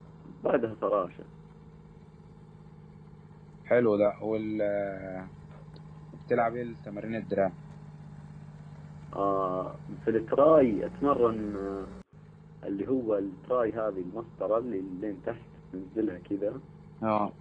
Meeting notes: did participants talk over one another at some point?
No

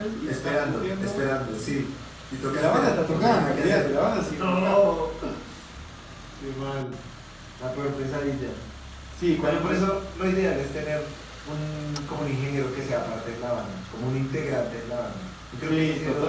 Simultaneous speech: Yes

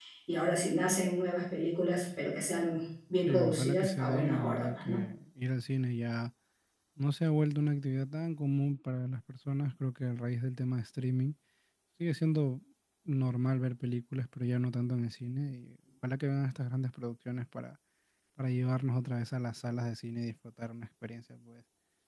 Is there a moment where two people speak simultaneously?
Yes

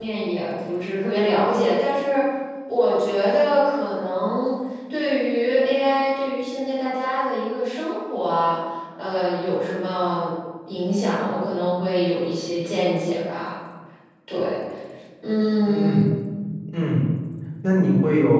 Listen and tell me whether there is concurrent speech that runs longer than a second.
No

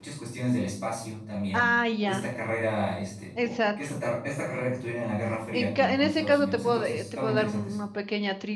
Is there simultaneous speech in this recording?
Yes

